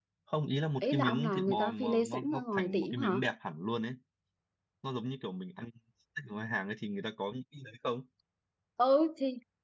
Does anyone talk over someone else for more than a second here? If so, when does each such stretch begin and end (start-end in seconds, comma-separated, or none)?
0.8-3.2